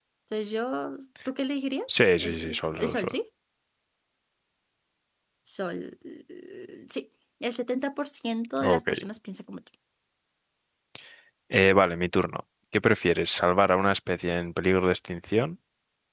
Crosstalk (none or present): present